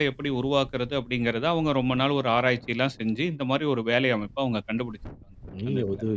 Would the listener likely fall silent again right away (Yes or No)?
No